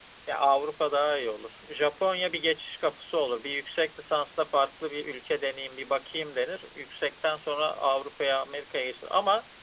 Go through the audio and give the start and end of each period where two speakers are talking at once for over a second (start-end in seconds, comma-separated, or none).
none